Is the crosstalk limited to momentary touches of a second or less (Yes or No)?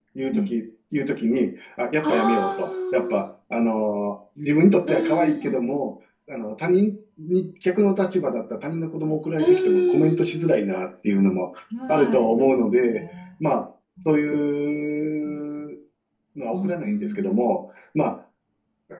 No